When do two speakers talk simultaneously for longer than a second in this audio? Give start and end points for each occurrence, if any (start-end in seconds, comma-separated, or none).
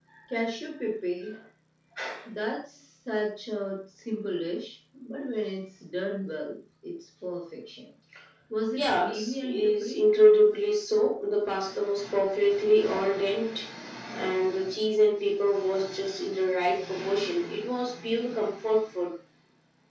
8.8-10.0